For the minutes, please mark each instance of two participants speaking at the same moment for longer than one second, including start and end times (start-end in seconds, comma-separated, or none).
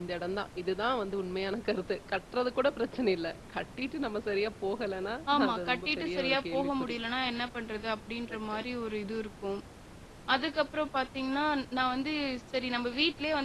5.3-7.0